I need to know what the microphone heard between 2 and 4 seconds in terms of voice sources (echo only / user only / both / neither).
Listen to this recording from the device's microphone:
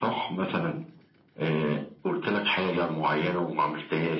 echo only